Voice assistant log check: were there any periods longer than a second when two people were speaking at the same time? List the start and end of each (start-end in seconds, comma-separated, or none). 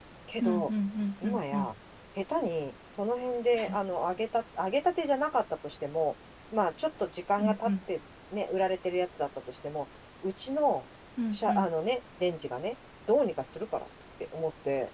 none